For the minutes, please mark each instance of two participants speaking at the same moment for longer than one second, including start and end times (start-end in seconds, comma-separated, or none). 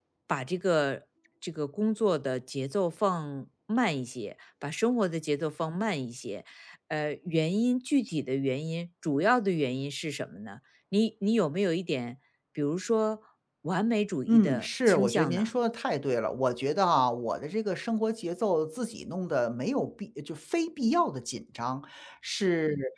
14.3-15.5